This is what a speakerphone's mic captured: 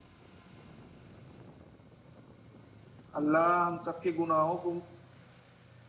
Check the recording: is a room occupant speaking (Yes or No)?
Yes